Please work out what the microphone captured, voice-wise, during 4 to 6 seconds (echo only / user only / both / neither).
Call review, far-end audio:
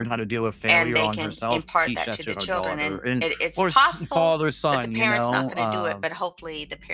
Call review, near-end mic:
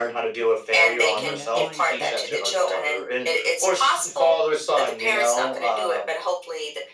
echo only